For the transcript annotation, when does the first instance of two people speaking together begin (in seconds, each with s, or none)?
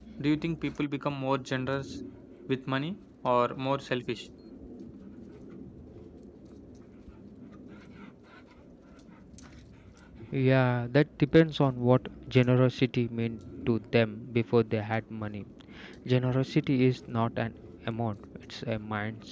none